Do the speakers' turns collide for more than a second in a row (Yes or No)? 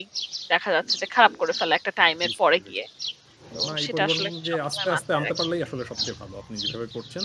Yes